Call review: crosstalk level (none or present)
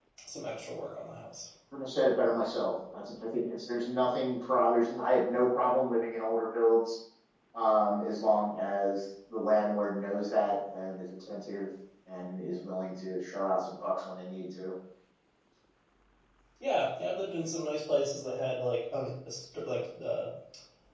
none